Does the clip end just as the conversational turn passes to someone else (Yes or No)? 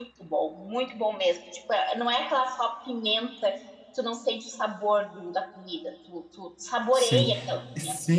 Yes